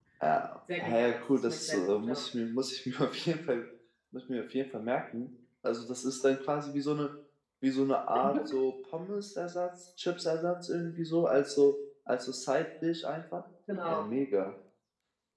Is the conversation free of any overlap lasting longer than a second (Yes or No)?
No